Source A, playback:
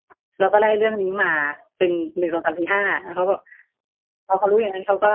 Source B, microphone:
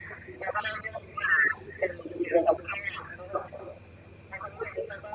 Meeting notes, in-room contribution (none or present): none